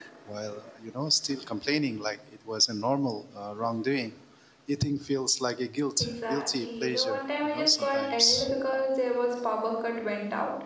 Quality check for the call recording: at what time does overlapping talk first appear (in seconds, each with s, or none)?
6.0 s